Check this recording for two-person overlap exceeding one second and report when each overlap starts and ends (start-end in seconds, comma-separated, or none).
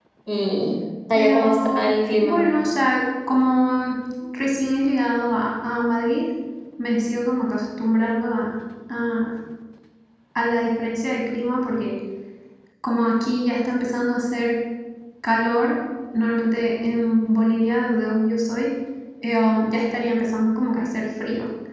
1.1-2.4